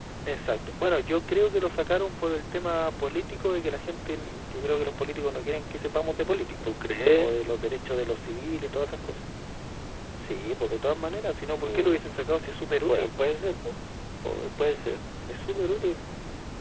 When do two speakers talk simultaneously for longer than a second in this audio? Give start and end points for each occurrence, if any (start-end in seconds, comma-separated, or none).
none